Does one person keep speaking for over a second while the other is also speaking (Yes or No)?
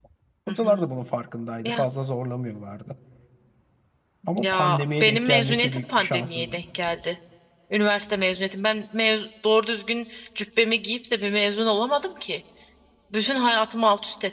Yes